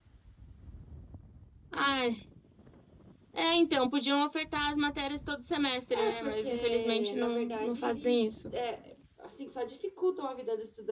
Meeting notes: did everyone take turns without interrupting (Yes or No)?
No